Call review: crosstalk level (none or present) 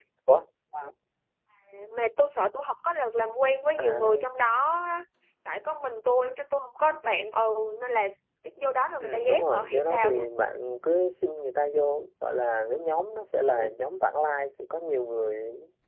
present